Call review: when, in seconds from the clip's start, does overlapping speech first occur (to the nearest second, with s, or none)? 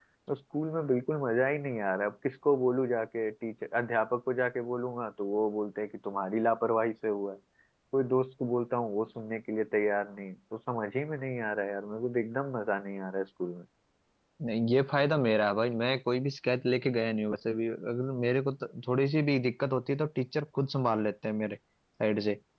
none